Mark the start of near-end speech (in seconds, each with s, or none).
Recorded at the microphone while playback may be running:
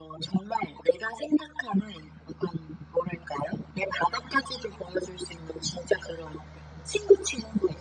none